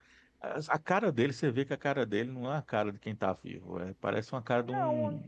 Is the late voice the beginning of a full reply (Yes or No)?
Yes